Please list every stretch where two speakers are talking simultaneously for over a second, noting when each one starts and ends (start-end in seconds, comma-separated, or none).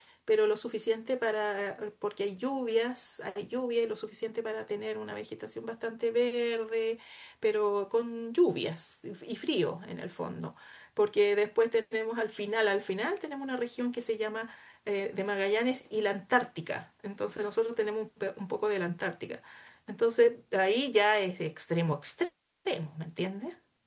none